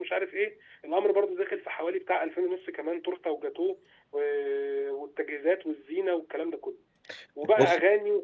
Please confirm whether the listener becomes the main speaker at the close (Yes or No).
No